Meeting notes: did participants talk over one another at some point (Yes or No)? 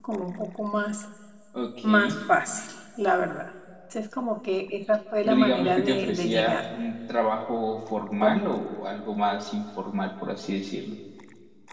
Yes